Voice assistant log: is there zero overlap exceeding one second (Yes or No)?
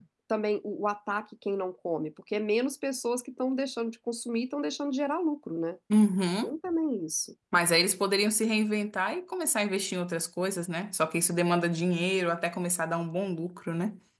Yes